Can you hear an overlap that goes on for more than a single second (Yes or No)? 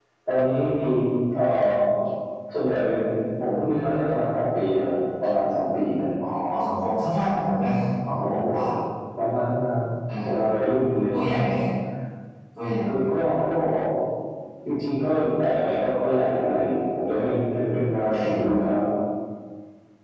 No